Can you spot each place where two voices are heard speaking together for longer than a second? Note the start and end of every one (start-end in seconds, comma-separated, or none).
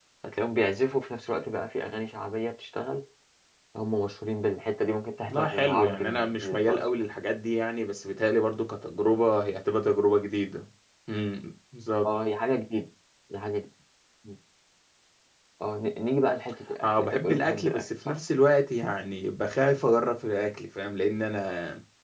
5.3-6.9, 16.8-18.2